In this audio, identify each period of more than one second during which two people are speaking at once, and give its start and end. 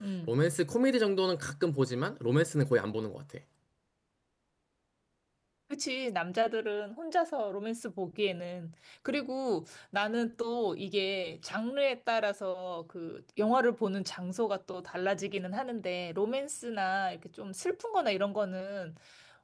none

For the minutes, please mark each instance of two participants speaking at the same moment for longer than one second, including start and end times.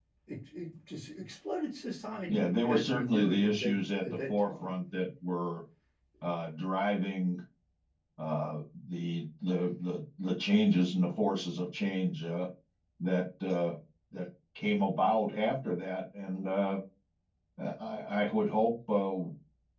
2.3-4.9

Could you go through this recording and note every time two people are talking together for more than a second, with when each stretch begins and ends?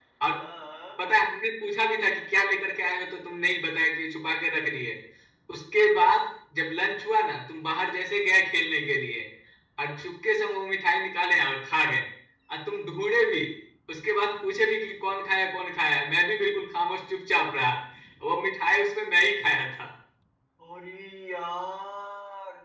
none

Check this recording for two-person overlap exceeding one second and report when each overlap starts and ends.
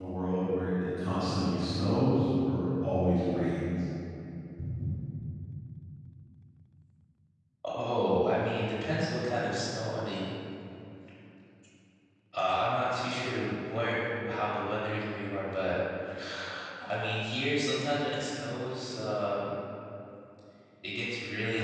none

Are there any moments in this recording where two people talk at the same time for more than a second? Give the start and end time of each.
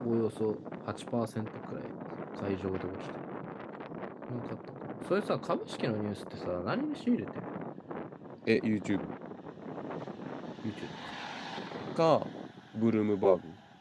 none

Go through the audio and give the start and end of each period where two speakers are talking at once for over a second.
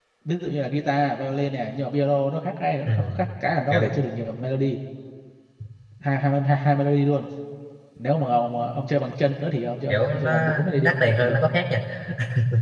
9.9-11.4

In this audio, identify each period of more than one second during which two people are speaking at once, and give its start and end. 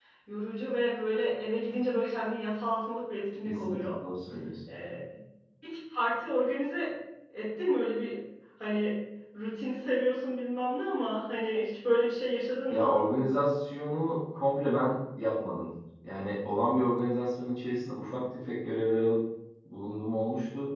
none

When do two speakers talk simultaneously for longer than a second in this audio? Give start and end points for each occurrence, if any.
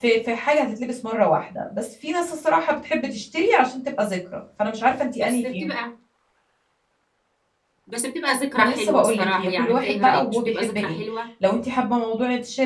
8.5-11.0

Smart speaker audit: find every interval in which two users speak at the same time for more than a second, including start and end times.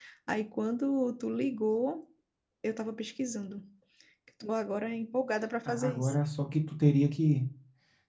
none

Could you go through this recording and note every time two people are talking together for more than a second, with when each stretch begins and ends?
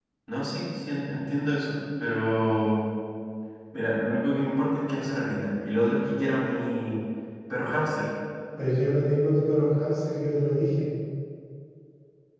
none

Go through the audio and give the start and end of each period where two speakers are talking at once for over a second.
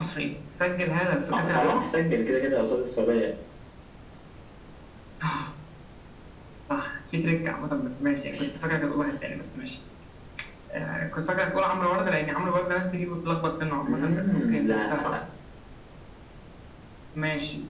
13.9-15.1

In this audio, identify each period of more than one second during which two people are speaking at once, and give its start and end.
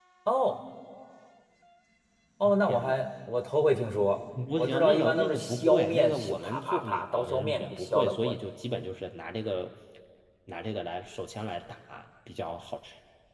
4.6-8.4

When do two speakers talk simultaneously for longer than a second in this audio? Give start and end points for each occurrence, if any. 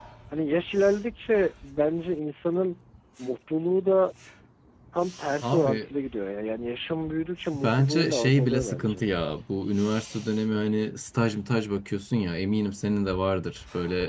7.5-9.0

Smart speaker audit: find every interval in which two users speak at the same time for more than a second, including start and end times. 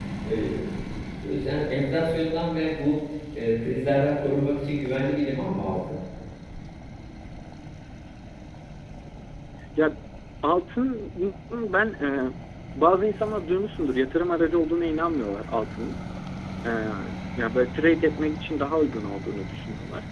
none

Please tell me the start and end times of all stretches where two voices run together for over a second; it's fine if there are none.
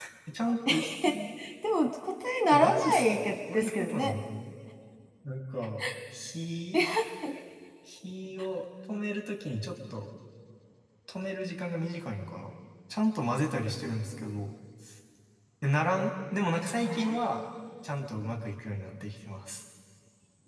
2.5-4.1

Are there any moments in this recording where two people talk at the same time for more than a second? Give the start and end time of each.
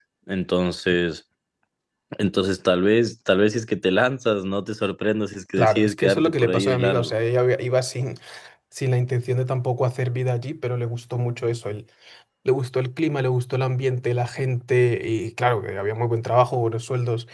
5.6-7.1

